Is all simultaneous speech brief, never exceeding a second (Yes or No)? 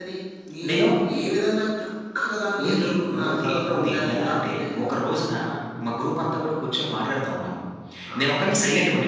No